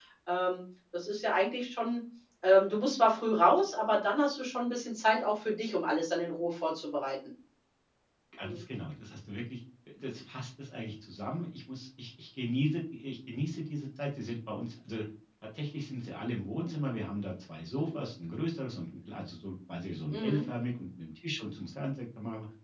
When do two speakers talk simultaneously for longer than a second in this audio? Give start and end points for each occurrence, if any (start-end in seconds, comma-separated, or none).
none